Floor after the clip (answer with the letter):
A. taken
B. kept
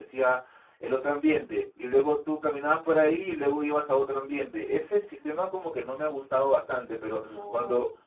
B